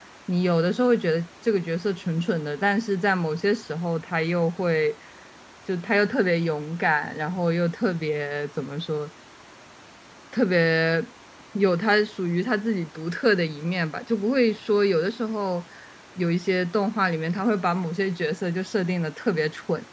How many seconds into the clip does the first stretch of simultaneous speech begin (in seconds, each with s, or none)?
none